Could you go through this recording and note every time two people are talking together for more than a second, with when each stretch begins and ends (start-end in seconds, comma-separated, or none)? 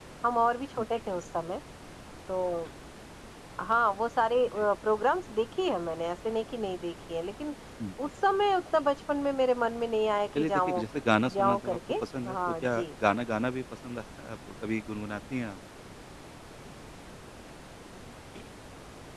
11.3-12.8